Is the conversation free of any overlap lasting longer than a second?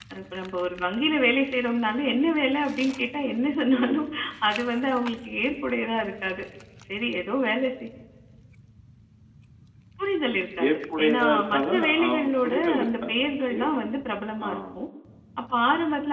No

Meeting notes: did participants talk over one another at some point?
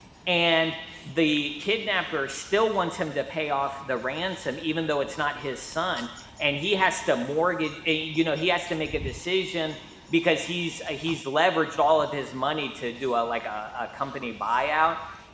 No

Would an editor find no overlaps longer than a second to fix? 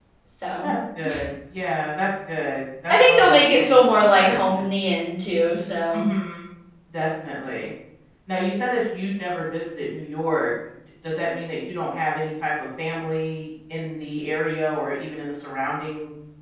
No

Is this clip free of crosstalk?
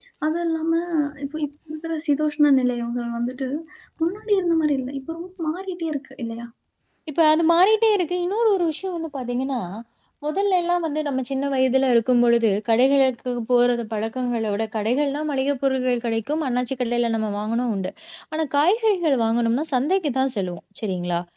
Yes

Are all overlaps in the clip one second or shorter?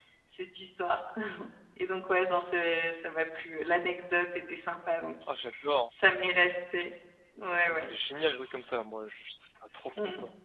Yes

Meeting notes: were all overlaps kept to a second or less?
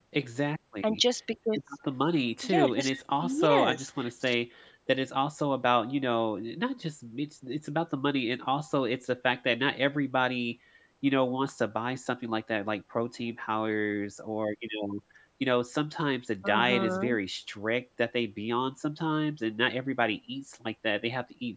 No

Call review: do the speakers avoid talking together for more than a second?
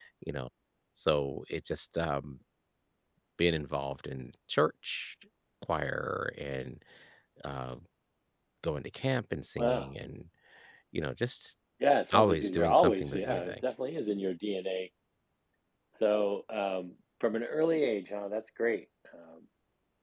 No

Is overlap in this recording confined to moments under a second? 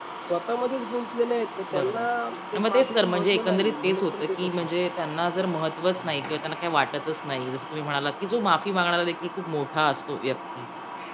No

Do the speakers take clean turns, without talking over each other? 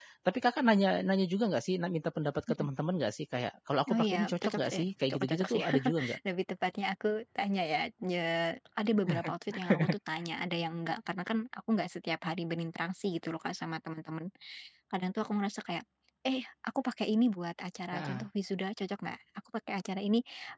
No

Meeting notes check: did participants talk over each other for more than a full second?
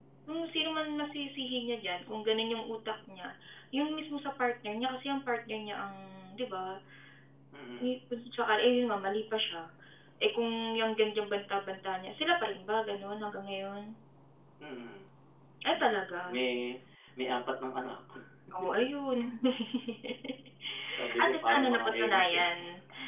Yes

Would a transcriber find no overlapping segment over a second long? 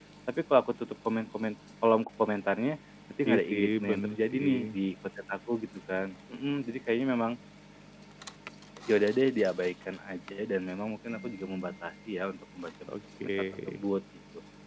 No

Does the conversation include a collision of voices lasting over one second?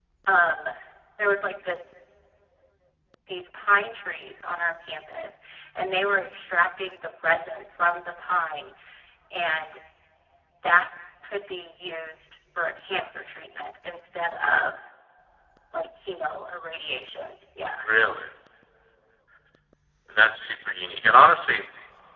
No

